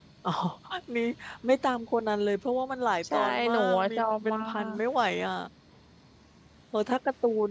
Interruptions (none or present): present